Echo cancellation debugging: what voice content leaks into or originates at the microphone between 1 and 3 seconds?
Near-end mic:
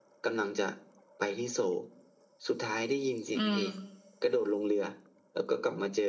echo only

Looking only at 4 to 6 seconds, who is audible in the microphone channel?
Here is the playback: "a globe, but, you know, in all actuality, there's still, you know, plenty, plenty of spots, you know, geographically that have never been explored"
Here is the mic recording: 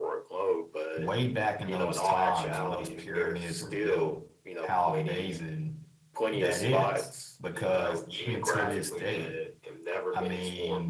both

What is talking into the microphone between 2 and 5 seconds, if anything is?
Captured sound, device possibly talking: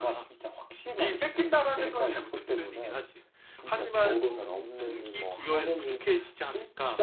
echo only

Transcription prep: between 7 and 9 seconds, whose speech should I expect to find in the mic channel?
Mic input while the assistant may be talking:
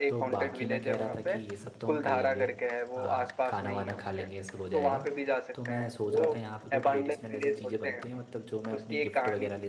both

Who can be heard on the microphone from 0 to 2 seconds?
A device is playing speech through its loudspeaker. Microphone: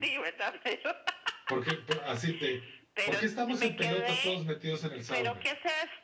both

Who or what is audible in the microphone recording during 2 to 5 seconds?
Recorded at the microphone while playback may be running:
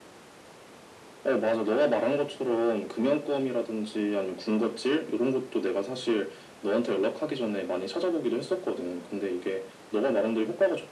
echo only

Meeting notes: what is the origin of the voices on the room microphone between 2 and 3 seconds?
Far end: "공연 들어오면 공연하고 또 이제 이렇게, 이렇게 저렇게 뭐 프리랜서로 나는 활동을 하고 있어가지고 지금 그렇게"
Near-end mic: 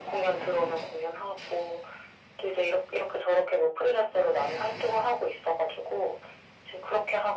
echo only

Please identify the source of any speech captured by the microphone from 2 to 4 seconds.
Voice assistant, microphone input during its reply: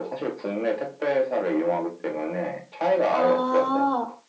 both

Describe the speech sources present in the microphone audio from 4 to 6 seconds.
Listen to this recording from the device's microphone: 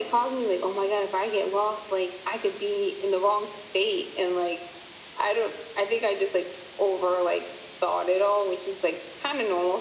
echo only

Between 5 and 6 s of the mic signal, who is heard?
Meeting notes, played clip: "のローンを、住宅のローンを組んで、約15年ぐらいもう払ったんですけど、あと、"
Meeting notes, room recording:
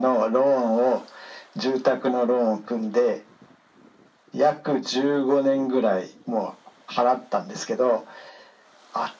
echo only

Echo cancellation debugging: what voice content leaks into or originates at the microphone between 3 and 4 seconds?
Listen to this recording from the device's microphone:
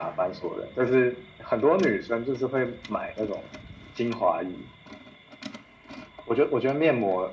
echo only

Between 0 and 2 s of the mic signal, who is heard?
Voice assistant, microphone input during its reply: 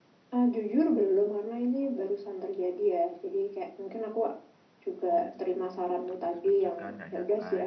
echo only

